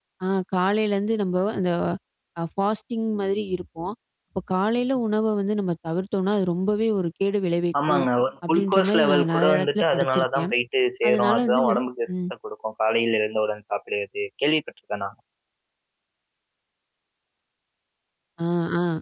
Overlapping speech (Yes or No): Yes